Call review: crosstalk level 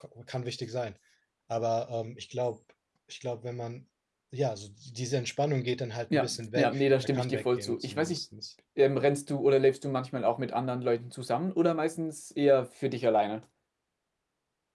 present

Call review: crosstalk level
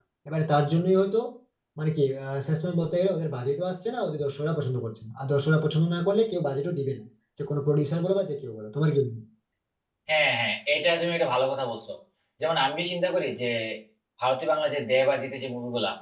none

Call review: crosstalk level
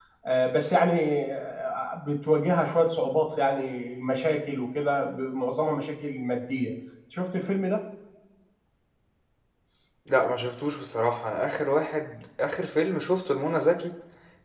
none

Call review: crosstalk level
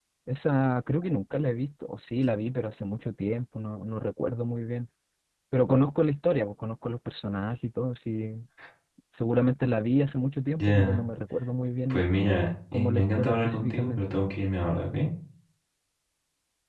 present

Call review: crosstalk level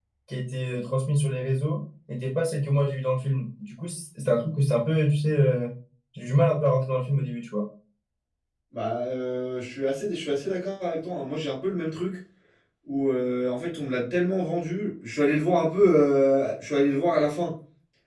none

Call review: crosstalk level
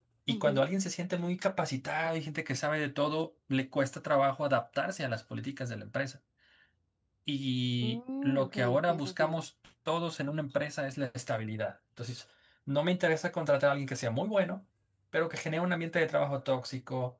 present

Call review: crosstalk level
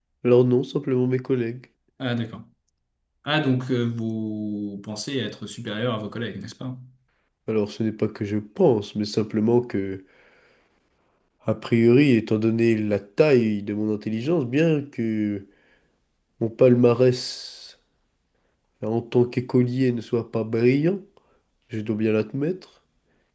none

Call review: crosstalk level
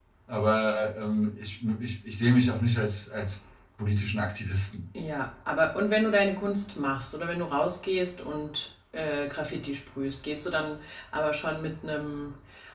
none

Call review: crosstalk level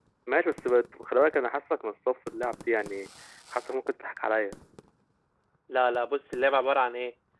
none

